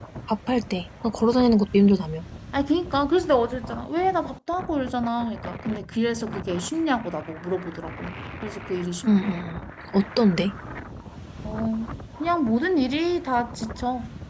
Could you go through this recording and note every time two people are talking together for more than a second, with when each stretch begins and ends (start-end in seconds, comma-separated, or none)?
none